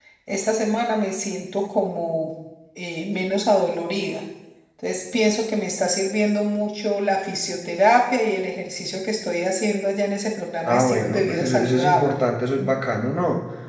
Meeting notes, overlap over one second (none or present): present